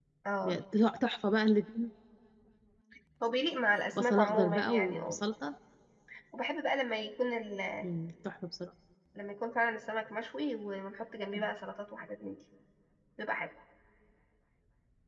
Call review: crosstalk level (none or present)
present